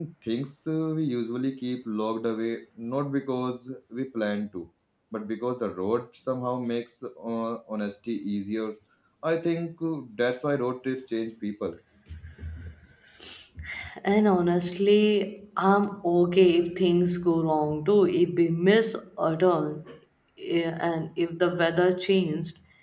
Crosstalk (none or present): none